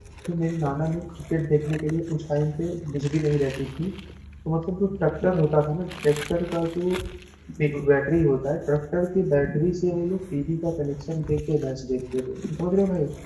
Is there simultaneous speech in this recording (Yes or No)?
No